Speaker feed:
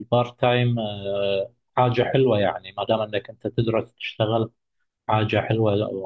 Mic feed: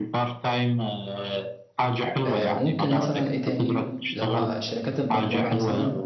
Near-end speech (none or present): present